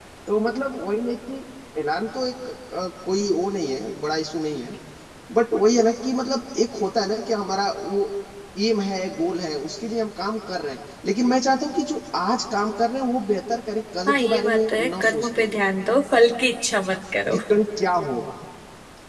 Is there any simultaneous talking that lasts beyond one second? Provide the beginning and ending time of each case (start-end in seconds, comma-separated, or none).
14.1-15.6